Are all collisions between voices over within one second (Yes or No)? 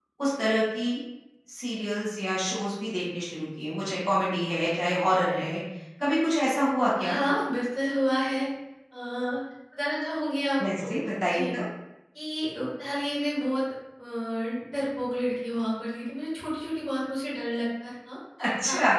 Yes